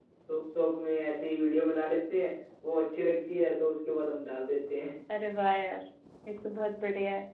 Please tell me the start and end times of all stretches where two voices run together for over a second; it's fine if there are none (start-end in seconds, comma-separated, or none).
none